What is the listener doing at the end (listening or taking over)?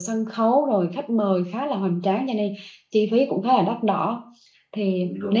listening